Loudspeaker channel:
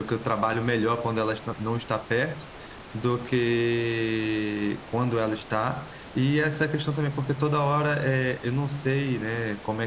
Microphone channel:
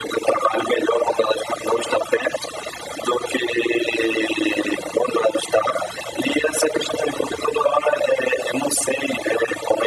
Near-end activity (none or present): none